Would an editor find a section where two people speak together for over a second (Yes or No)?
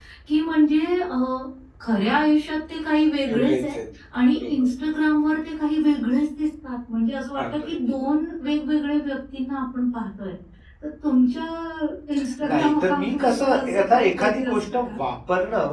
Yes